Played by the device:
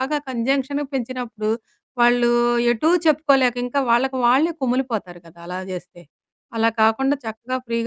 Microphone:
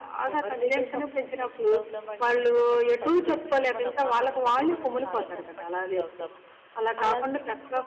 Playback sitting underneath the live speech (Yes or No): No